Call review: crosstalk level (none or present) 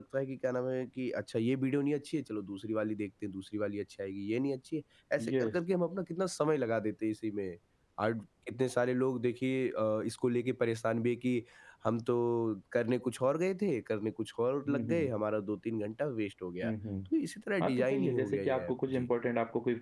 present